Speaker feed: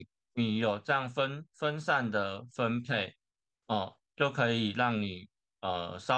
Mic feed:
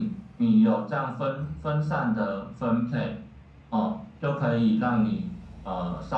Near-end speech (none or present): none